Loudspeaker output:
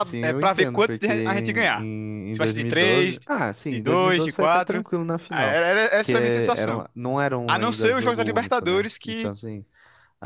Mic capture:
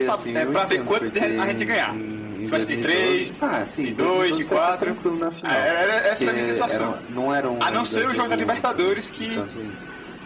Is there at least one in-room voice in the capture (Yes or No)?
No